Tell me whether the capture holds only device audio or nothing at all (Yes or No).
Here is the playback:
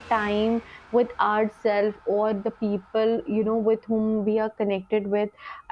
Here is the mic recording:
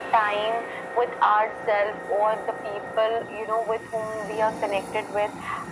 Yes